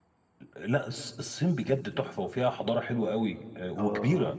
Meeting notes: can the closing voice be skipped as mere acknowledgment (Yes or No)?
No